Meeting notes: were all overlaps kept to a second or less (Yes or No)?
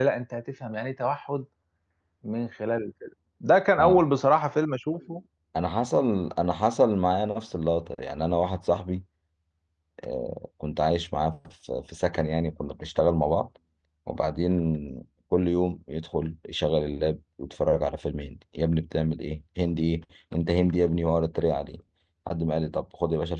Yes